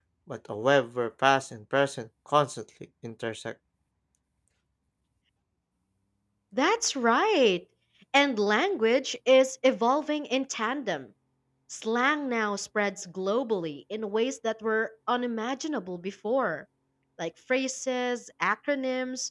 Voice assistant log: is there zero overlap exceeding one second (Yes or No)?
Yes